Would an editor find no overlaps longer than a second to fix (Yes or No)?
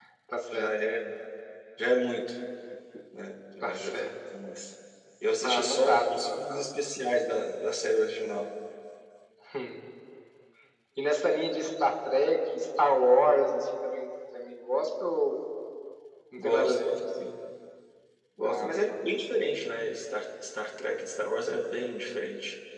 No